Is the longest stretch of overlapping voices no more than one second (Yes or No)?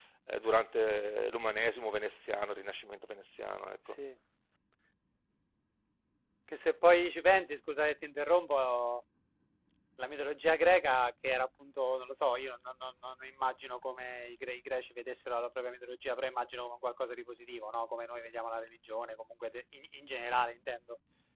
Yes